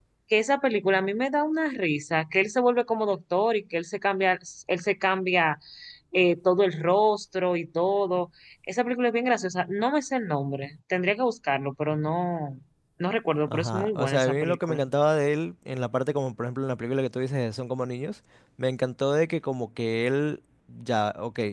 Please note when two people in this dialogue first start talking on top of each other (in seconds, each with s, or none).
13.5 s